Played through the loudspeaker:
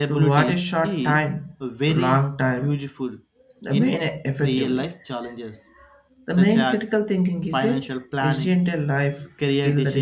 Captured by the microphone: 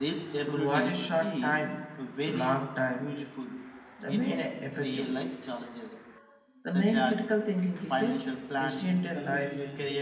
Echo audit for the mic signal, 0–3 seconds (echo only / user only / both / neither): echo only